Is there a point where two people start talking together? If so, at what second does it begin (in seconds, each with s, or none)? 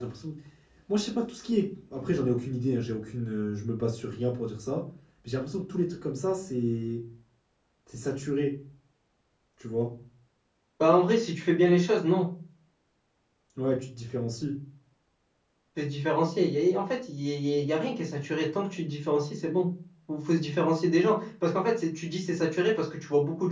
none